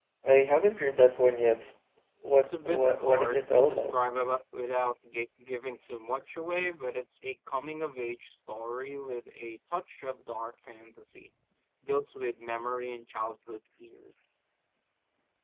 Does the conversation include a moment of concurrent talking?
Yes, from 2.4 s

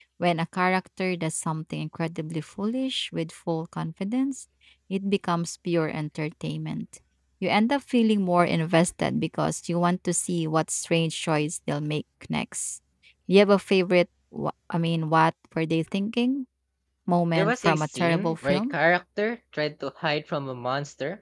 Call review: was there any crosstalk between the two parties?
Yes, from 17.4 s

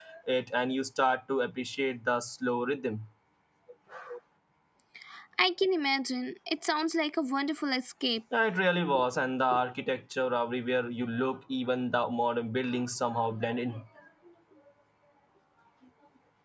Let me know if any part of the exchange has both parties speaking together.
No

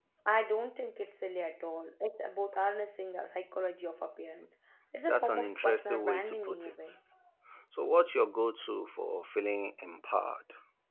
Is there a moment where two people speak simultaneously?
Yes, from 5.1 s

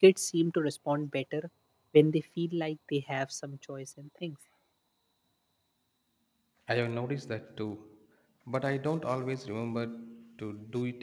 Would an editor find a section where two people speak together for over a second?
No

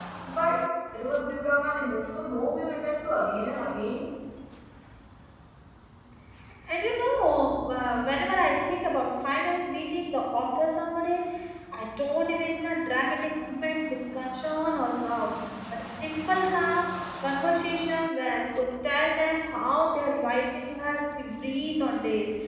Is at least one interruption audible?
No

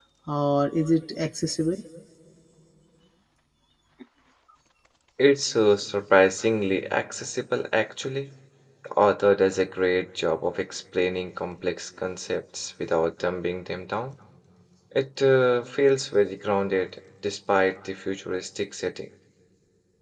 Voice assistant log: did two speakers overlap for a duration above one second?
No

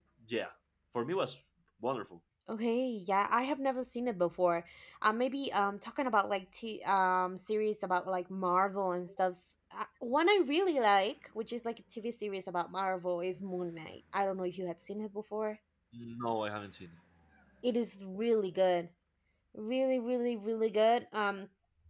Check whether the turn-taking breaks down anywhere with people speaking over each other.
No

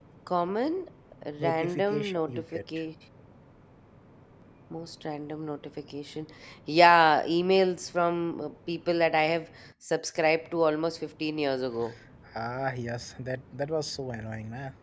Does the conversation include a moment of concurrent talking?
Yes, from 1.4 s

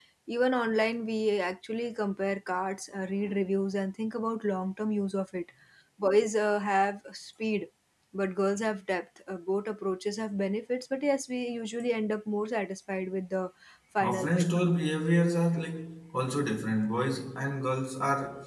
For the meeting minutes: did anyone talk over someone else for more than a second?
No

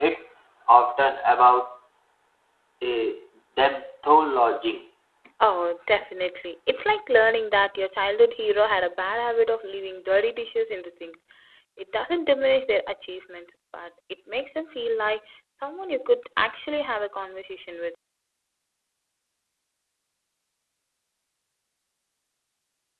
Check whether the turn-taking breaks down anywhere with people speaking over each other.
No

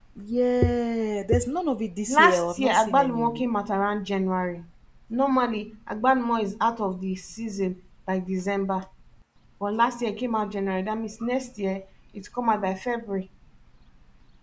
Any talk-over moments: Yes, from 2.1 s

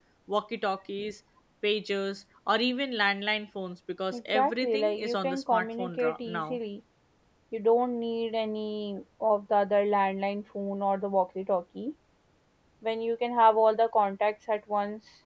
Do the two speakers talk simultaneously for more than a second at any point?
Yes, from 4.1 s

